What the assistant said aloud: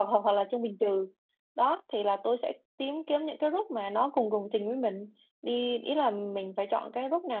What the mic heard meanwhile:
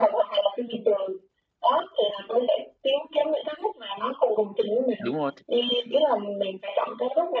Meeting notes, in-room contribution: present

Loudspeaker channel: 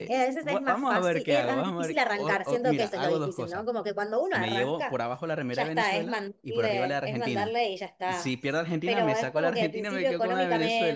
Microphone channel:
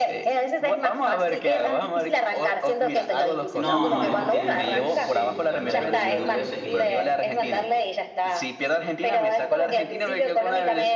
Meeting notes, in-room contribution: present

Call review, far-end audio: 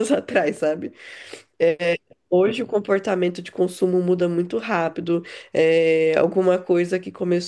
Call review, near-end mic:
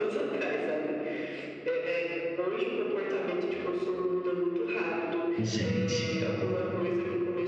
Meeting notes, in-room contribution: present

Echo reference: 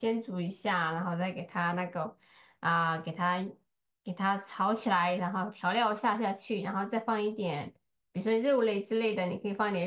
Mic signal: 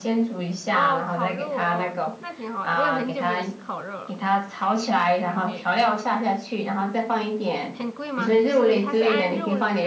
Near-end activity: present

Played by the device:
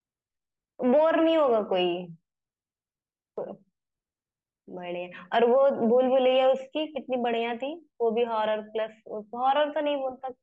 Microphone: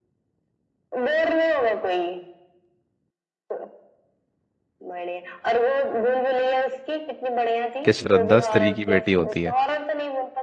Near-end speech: present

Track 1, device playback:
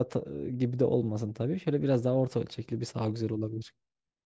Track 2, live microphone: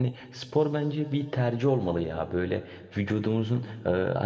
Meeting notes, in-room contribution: present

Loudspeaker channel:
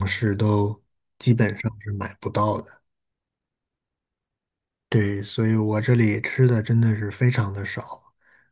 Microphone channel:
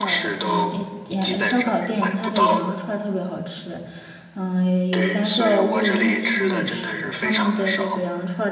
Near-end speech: present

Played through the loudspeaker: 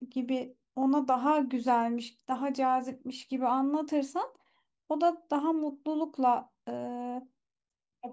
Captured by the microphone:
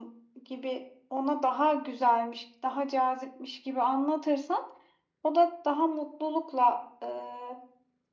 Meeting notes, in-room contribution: none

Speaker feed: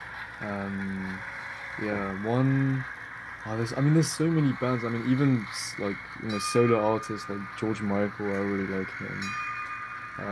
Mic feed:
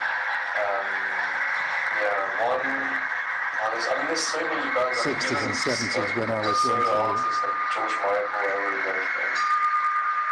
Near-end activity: present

